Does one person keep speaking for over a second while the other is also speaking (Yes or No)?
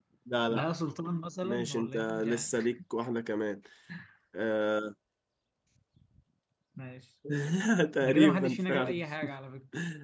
Yes